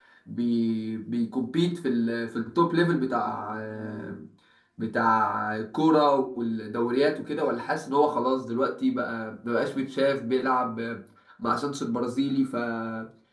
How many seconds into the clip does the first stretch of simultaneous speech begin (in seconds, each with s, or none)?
none